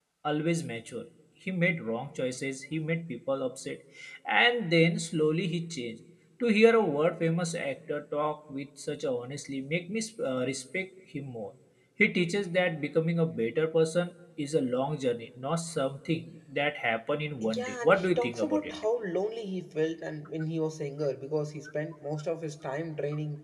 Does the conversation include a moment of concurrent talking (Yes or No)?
Yes